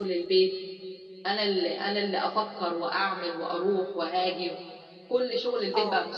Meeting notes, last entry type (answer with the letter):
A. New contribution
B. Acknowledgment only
B